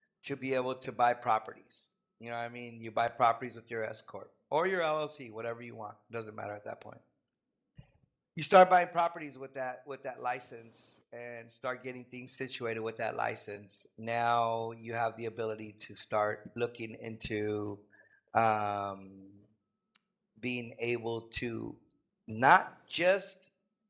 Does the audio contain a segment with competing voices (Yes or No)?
No